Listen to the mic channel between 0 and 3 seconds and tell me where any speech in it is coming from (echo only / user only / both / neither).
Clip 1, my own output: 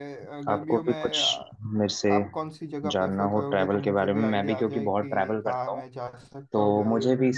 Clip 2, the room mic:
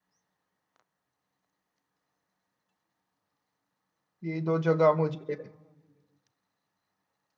neither